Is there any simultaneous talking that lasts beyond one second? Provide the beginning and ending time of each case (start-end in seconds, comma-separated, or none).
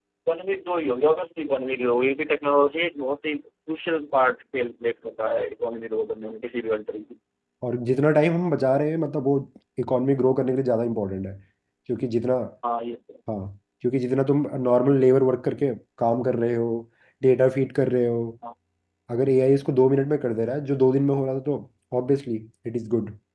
none